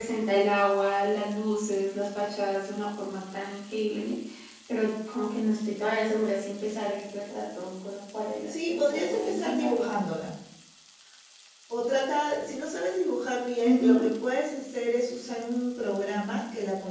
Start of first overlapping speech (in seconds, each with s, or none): 8.5 s